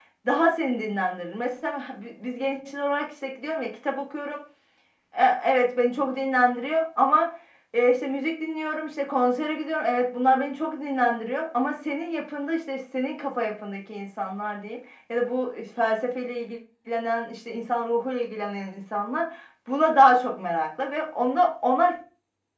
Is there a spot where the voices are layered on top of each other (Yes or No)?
No